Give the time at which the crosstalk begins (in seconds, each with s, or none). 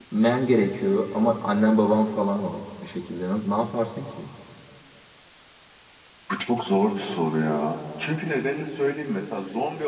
none